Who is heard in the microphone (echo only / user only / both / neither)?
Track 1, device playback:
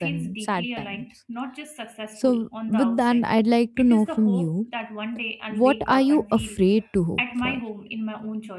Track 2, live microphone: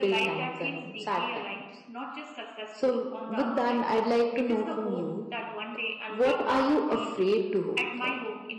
echo only